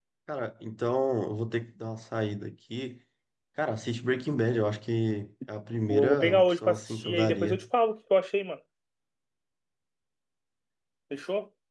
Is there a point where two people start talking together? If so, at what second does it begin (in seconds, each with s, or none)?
5.8 s